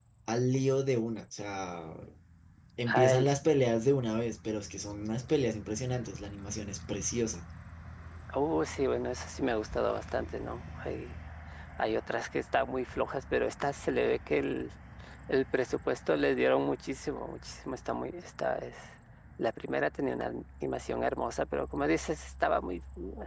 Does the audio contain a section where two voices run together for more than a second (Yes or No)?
No